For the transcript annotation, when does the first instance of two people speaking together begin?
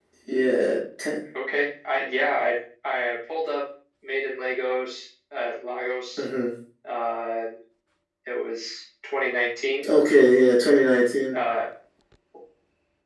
none

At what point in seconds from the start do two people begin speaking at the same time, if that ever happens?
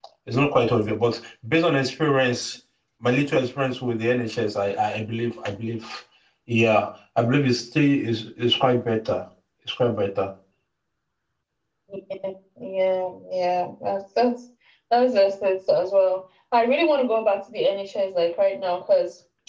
none

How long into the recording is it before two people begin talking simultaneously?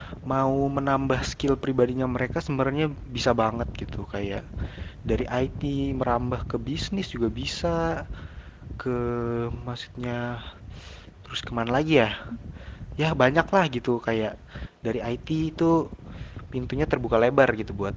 none

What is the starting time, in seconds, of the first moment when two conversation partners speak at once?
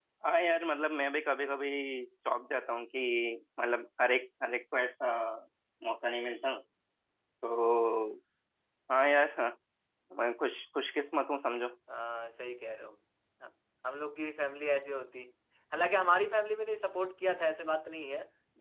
none

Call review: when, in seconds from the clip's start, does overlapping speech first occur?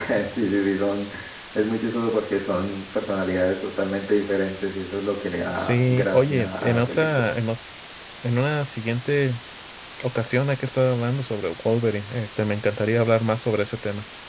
6 s

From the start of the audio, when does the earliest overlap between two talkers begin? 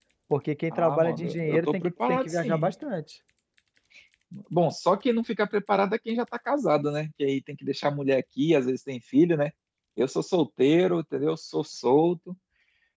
1 s

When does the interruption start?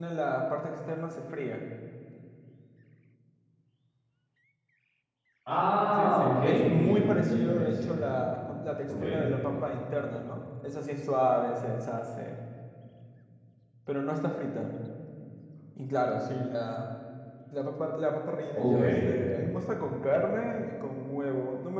6 s

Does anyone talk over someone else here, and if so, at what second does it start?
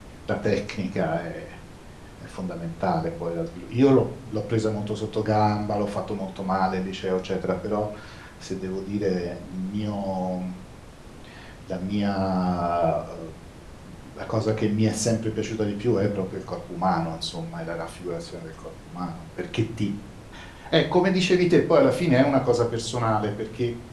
none

